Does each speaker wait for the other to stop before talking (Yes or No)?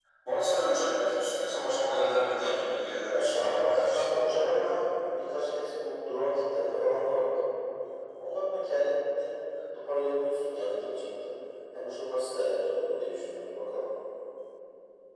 No